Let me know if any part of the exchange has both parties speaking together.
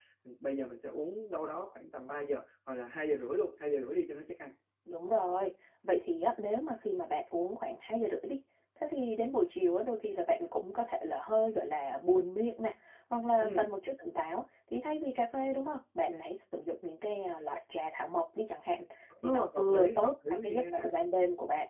Yes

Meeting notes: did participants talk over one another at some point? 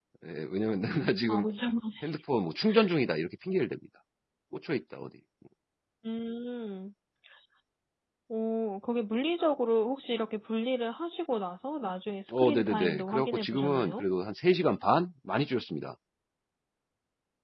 Yes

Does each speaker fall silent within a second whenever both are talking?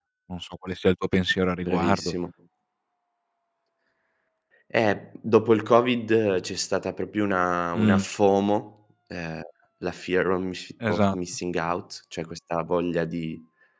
Yes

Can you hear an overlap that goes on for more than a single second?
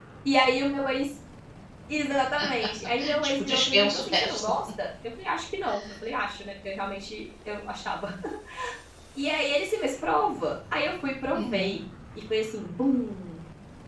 Yes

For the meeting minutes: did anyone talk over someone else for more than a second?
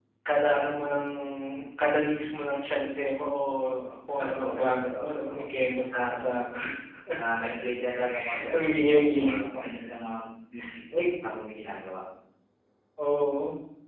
Yes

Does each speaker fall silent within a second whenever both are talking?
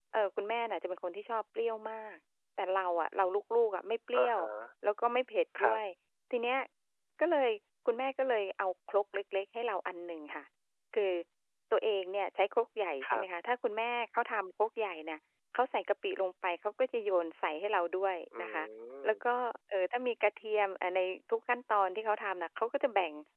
Yes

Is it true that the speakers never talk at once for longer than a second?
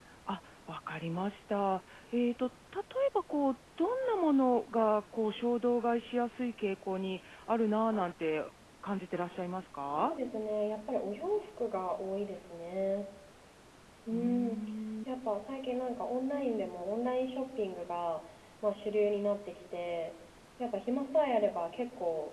Yes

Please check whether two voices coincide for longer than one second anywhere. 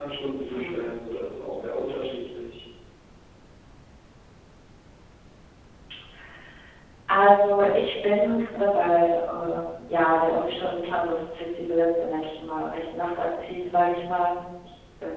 No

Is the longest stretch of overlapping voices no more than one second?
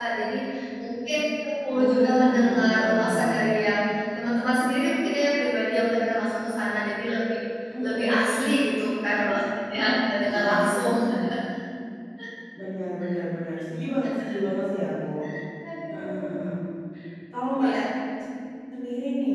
No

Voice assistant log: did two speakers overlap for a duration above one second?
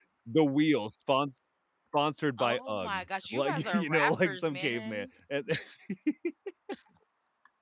Yes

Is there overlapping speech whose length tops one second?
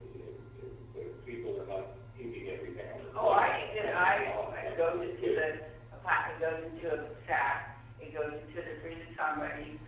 Yes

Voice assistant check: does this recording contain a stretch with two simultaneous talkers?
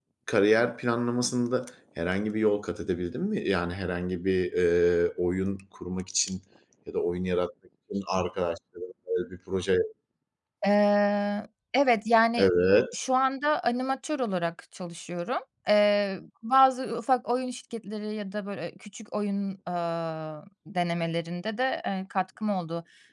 No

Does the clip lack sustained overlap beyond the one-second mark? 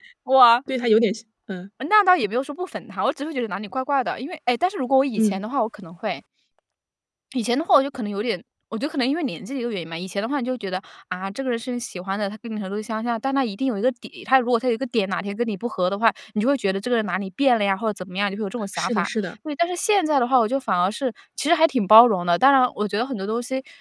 Yes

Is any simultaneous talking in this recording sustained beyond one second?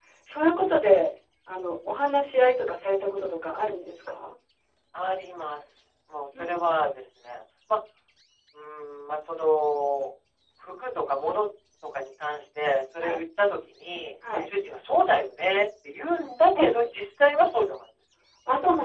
No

